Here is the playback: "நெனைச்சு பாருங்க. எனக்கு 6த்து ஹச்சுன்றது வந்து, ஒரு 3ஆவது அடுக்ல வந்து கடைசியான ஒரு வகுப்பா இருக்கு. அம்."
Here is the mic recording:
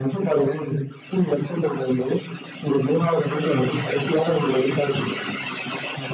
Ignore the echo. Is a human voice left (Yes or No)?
No